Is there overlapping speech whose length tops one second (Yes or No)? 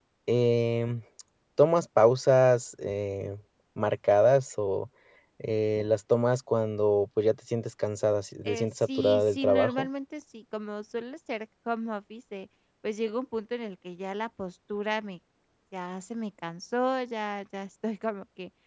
Yes